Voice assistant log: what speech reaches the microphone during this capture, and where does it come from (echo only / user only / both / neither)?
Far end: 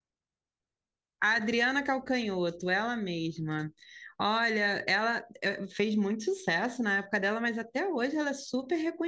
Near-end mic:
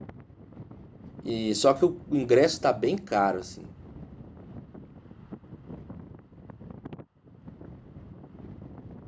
user only